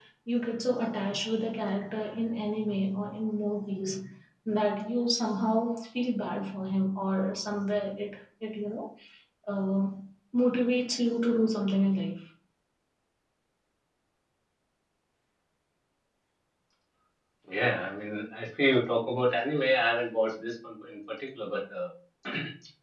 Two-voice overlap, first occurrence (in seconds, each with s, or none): none